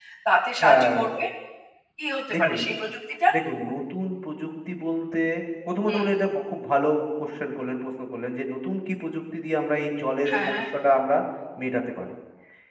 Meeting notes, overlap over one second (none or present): none